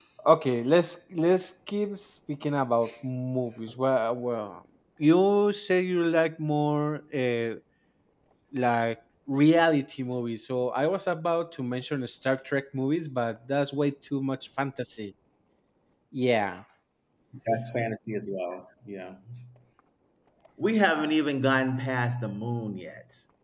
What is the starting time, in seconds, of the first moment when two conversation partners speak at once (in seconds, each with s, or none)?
none